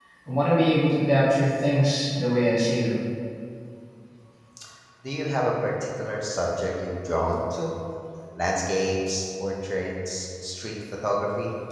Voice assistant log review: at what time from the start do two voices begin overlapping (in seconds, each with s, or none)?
none